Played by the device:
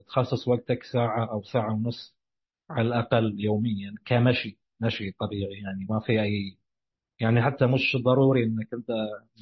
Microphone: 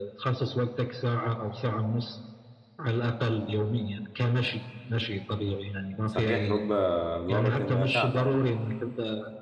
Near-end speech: present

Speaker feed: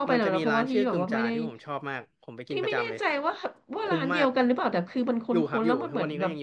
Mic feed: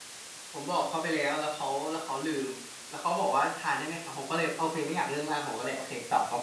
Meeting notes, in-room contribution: present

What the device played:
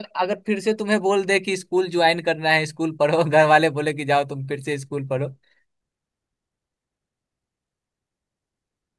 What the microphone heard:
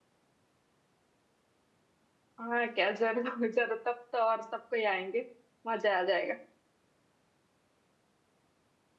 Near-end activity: present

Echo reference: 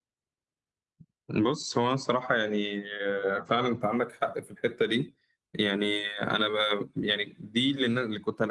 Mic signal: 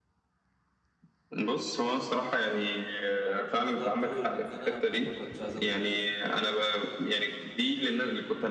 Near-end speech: present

